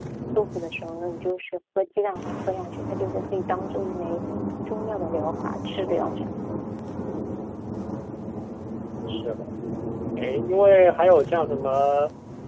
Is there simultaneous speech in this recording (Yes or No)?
No